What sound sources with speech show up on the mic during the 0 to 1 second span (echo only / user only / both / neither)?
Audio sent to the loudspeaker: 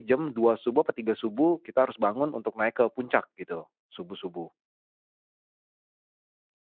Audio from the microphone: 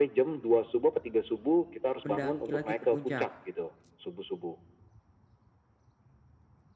echo only